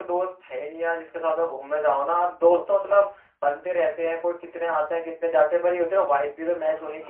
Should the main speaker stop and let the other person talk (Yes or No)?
Yes